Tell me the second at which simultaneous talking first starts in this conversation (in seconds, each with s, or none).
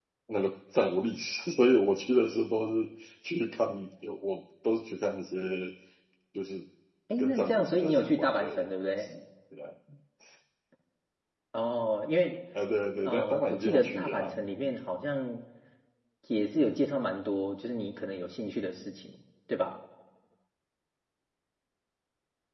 7.2 s